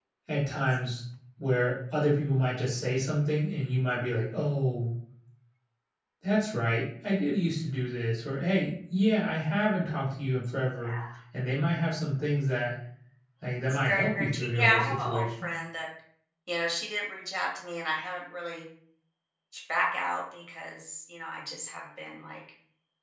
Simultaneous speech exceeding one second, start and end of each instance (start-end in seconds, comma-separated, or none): 13.7-15.5